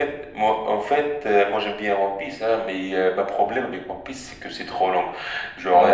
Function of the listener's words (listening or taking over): listening